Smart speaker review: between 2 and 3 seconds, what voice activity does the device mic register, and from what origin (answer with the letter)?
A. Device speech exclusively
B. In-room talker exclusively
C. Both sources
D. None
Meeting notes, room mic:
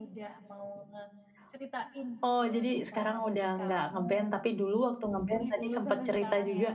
C